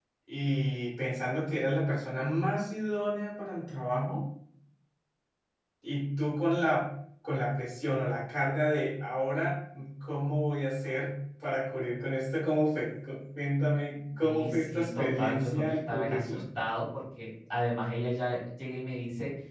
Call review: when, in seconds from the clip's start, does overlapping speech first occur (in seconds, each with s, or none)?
14.2 s